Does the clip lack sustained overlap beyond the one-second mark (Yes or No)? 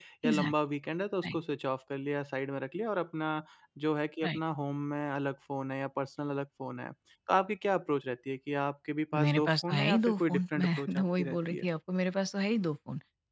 No